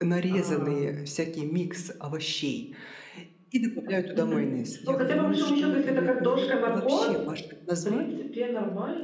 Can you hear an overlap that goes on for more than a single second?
Yes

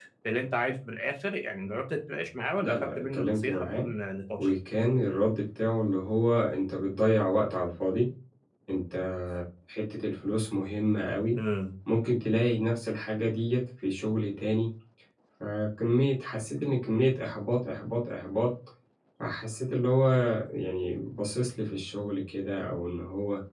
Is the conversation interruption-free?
No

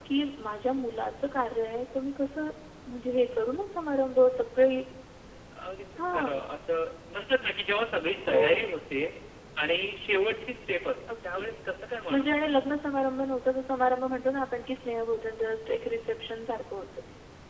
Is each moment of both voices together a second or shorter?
Yes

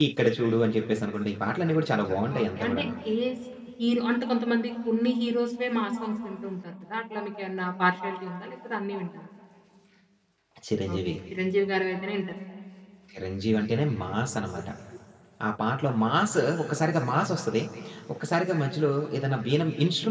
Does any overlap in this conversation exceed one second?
No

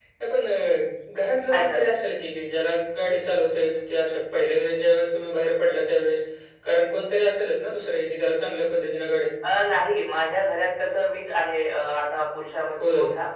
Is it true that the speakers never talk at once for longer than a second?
Yes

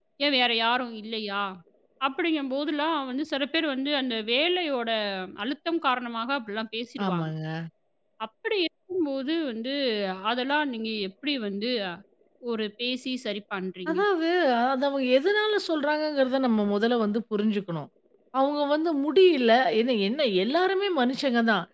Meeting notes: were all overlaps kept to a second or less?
Yes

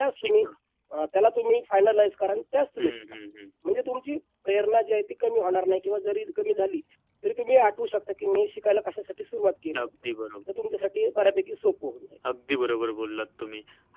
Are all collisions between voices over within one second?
Yes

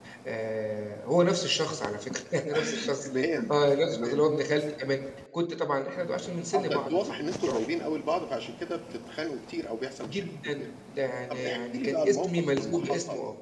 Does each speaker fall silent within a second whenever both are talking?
No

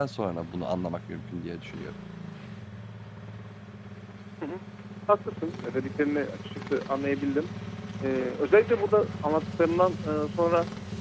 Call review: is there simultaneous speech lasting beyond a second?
No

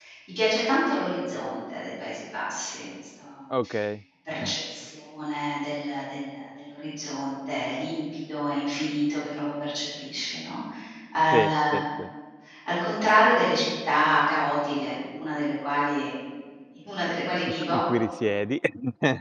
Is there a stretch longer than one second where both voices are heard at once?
No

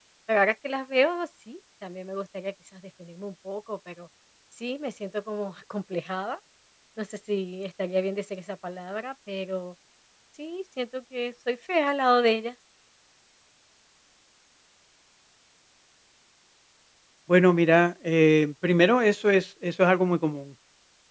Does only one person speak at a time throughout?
Yes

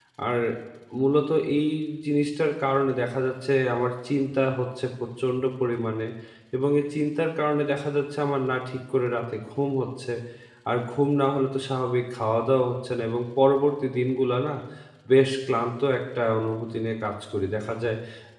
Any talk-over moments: No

